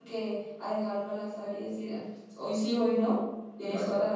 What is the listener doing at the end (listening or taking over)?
taking over